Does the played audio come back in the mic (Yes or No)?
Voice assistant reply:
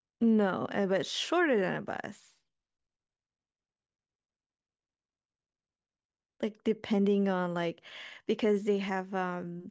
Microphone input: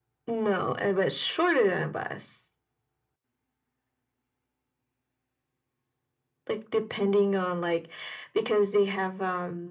Yes